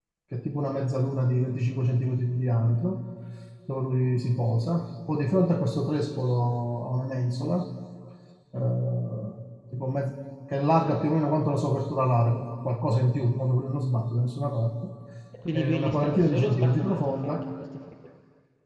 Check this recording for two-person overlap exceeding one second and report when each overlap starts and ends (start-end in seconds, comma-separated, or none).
15.5-17.4